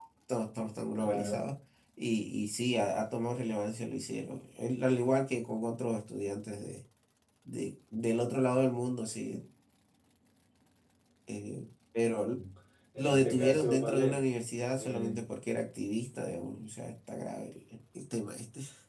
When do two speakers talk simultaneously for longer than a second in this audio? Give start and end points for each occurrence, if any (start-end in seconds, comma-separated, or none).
13.0-14.2